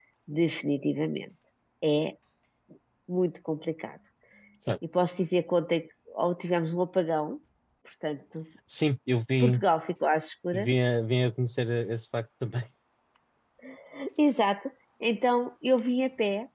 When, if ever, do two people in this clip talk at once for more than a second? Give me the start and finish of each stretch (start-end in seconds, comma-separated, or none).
none